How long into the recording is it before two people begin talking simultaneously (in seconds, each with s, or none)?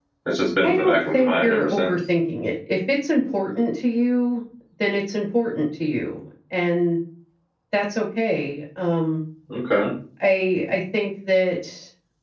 0.6 s